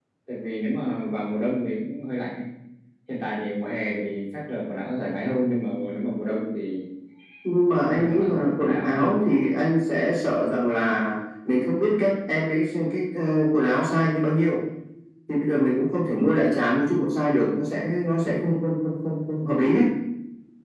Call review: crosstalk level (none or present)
present